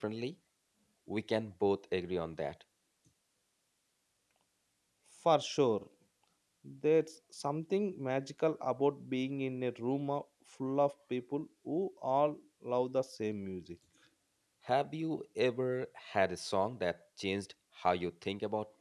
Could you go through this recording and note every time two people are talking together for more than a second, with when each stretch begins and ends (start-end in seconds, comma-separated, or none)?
none